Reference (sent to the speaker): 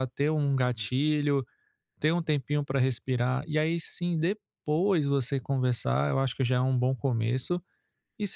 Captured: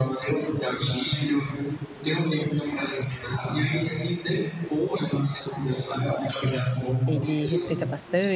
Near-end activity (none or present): present